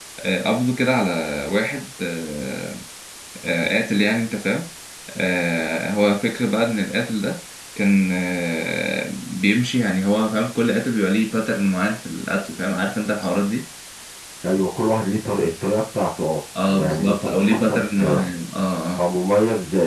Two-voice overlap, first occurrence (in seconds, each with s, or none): 16.6 s